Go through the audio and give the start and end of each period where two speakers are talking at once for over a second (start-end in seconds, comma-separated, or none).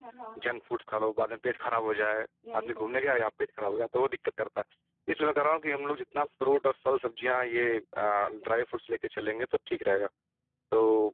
none